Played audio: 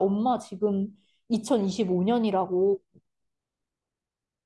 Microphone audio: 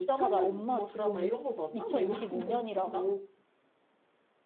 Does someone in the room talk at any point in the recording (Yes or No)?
Yes